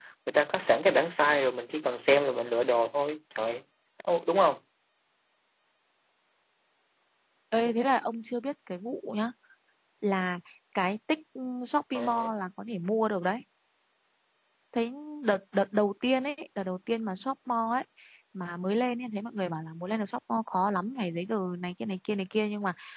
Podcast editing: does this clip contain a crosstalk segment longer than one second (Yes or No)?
No